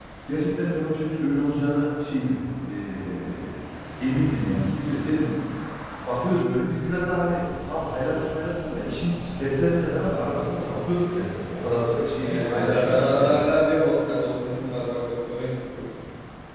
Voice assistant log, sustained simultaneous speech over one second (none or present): present